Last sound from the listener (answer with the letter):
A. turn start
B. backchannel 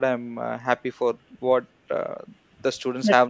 B